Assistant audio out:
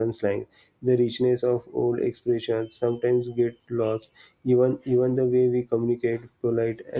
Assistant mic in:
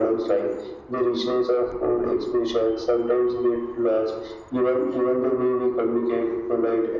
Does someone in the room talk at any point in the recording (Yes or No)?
No